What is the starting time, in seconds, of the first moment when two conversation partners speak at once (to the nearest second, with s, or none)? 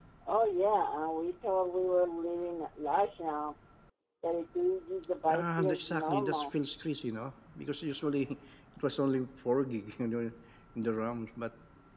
5 s